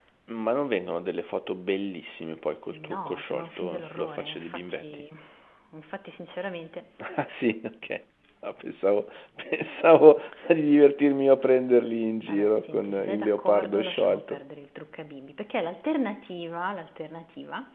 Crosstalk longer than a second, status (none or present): present